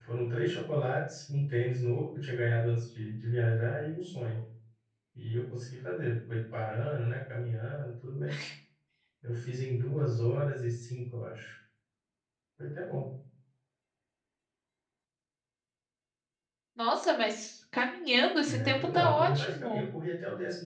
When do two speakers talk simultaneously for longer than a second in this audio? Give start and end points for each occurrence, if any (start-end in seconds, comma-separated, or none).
18.5-19.8